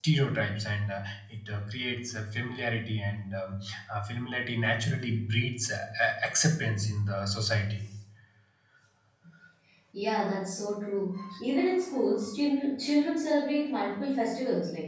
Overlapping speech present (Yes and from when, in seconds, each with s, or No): No